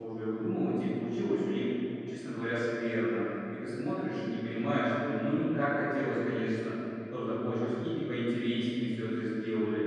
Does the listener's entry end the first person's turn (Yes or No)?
Yes